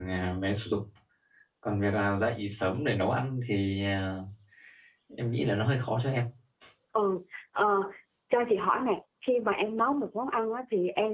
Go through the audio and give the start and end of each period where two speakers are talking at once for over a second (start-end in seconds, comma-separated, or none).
none